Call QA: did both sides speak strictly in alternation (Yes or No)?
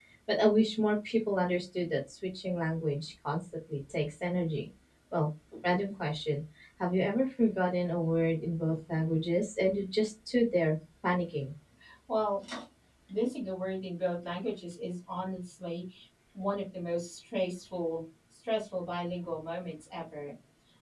Yes